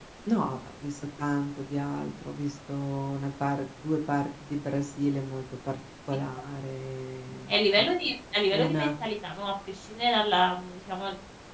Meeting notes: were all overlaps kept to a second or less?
Yes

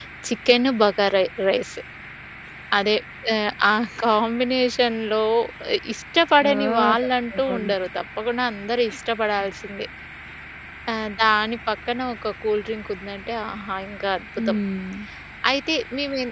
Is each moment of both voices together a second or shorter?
No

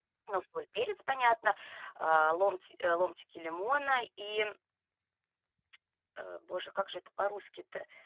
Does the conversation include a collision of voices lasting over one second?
No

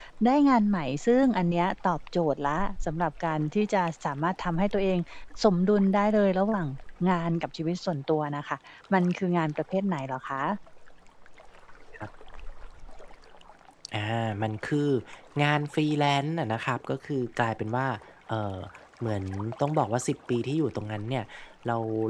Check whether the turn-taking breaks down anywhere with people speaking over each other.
No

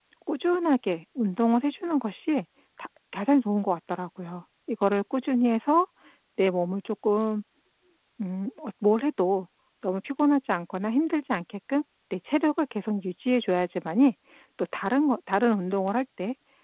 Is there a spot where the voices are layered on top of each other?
No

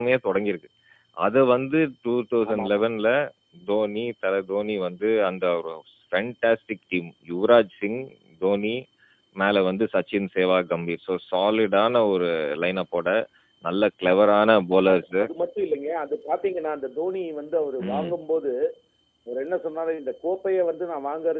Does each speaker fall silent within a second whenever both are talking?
Yes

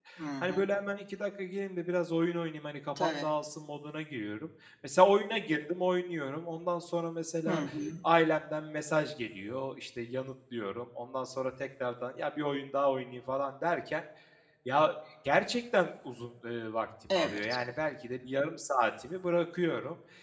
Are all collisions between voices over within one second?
Yes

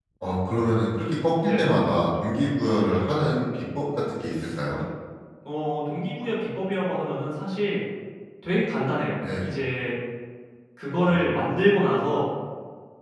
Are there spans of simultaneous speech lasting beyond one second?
No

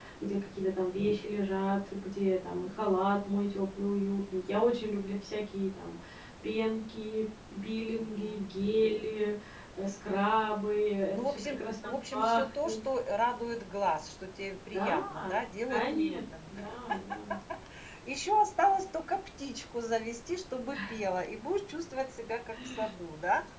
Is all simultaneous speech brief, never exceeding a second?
No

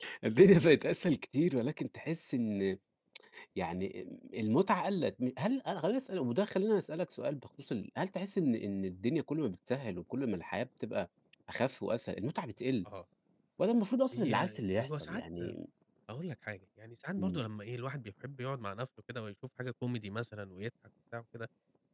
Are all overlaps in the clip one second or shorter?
No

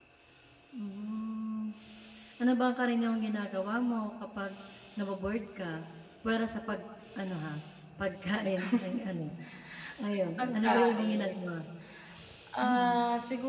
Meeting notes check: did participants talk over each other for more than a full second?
Yes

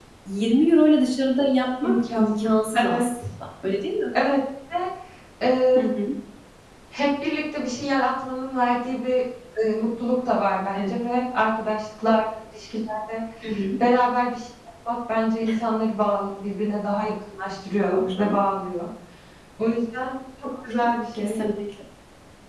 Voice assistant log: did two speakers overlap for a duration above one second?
Yes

